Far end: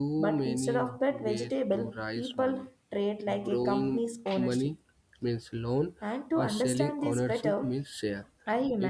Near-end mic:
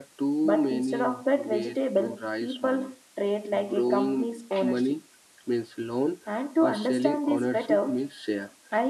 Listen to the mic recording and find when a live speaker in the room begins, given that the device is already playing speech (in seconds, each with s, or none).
none